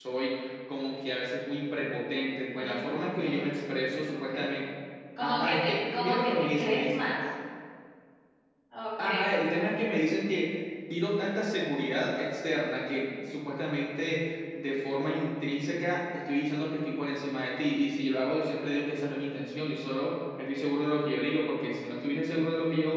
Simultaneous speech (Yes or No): Yes